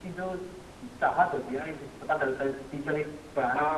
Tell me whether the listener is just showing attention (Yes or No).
No